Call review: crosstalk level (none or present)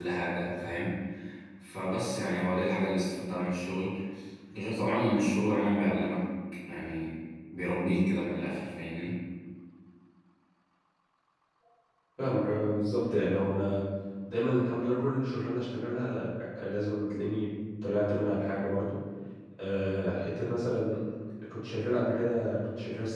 none